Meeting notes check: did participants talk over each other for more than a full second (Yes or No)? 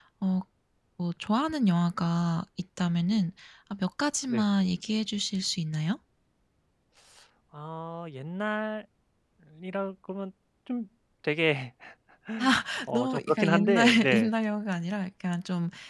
Yes